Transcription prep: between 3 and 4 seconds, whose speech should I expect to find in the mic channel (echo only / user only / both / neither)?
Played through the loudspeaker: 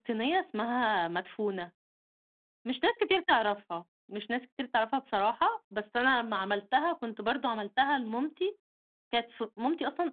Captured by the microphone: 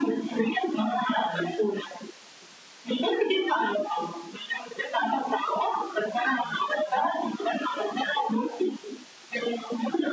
echo only